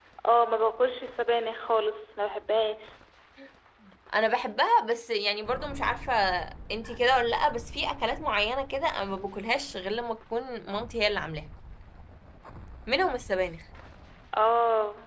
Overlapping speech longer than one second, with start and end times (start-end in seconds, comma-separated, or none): none